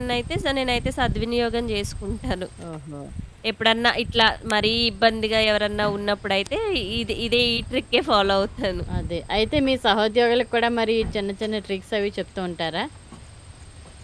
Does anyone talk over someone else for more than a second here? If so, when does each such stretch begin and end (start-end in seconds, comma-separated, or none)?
none